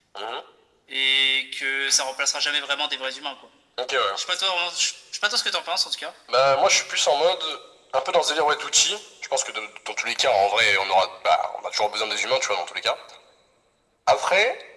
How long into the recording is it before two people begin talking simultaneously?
none

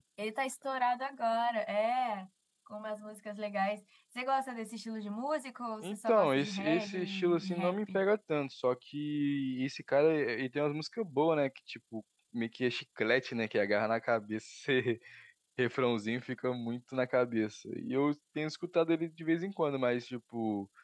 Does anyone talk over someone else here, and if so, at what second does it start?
6 s

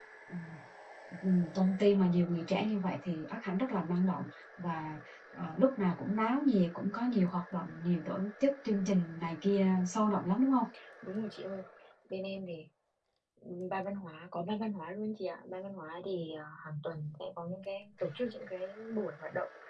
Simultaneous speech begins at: none

